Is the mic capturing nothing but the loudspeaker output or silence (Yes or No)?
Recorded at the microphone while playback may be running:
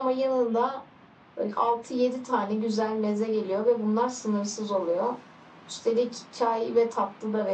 Yes